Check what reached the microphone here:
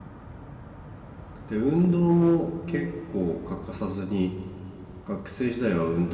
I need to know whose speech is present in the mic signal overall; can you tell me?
user only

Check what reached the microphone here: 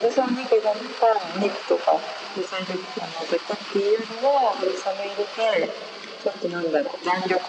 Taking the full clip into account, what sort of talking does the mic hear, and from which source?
echo only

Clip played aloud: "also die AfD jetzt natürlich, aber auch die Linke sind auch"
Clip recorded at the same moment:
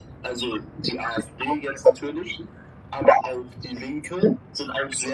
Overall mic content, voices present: echo only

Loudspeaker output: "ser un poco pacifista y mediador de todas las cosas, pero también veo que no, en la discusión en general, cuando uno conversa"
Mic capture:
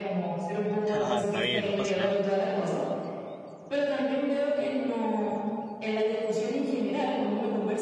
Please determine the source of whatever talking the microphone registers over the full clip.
both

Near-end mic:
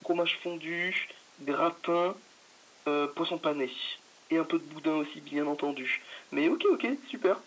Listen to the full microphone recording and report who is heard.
echo only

